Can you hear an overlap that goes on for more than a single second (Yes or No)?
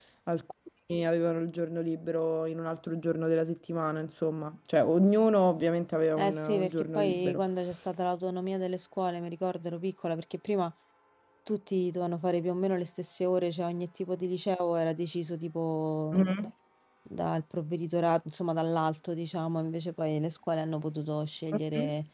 Yes